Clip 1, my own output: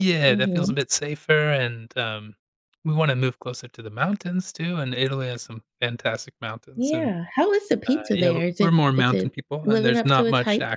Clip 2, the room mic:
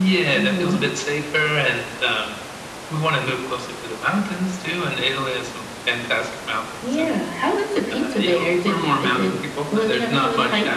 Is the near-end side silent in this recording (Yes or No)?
Yes